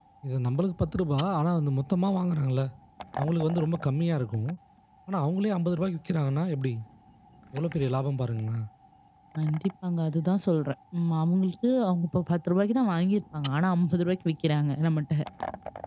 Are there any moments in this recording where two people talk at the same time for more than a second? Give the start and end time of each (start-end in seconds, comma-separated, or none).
none